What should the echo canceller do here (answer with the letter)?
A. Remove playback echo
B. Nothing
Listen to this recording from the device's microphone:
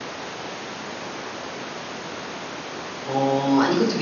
B